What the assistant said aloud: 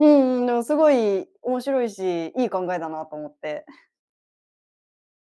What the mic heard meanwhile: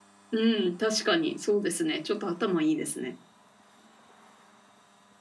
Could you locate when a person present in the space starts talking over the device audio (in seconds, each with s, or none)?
0.3 s